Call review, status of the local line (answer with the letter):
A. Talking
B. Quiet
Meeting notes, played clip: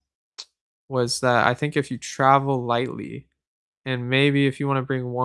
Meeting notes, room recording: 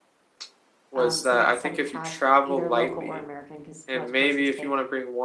A